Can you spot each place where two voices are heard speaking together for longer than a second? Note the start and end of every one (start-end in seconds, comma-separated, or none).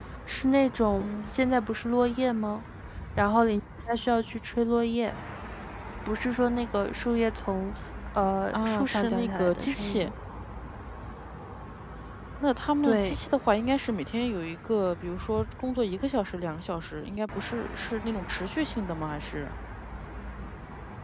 8.5-10.1